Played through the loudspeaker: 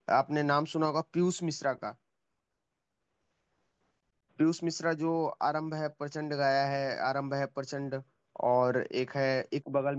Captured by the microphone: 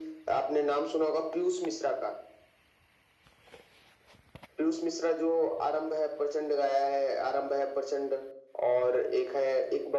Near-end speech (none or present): none